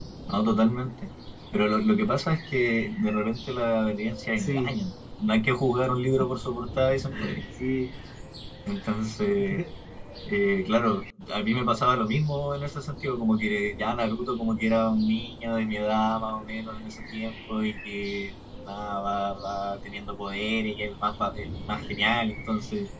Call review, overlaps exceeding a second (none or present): none